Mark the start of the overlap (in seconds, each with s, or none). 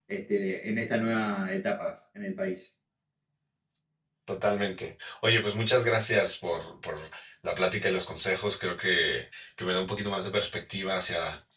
none